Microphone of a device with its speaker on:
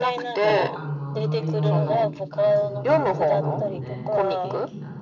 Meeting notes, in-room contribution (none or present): present